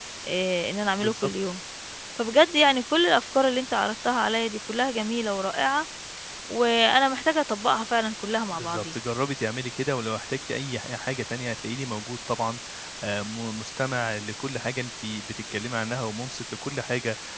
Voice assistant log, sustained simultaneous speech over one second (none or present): none